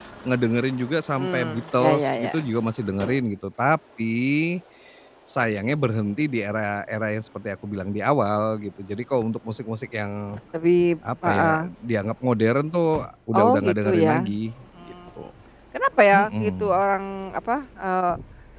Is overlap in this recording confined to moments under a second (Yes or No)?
No